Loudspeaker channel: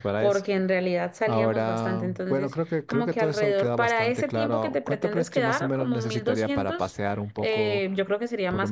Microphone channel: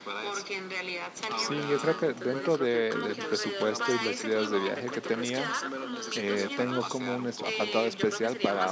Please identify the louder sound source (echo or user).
user